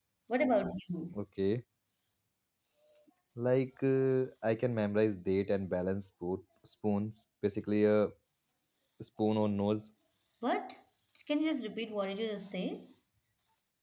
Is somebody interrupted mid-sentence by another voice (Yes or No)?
No